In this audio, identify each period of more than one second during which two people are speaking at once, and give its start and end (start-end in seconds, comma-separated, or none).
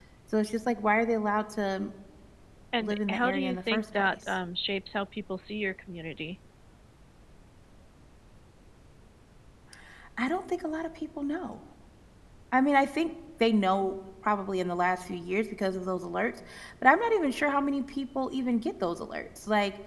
2.8-4.2